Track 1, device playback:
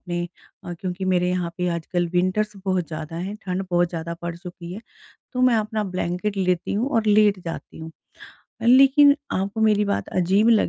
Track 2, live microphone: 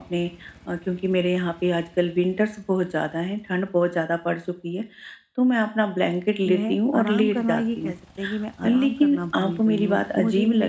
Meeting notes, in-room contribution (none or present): present